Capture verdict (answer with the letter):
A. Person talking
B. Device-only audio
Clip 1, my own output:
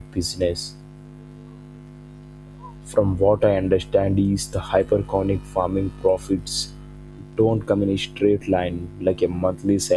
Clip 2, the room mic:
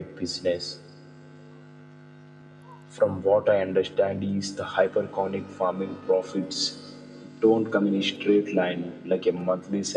B